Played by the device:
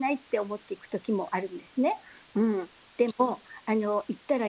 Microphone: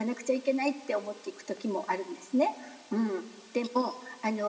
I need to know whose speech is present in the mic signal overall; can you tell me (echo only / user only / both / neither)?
echo only